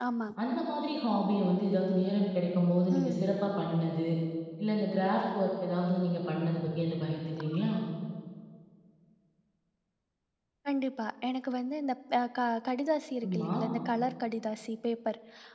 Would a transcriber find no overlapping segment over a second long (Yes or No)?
Yes